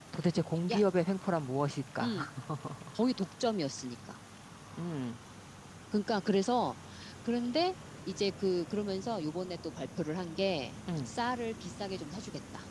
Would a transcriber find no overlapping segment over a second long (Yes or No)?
Yes